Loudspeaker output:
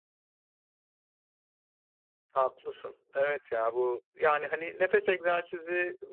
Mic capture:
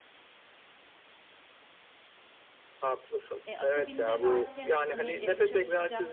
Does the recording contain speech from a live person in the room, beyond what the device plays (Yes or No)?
Yes